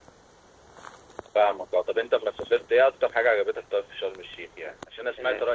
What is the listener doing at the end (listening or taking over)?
listening